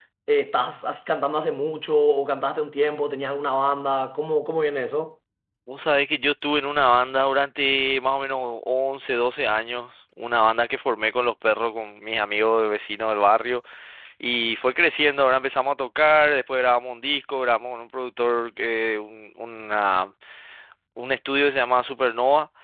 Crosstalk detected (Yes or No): No